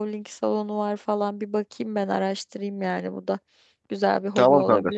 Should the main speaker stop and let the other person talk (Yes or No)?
Yes